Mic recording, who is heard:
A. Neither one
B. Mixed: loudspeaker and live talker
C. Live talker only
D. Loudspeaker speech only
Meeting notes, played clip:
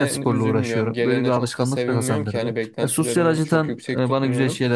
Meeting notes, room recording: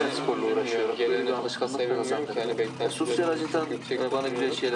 D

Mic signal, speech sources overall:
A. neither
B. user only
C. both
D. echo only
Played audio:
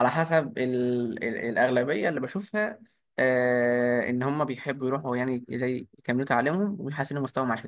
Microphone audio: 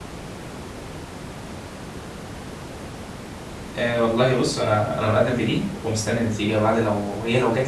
B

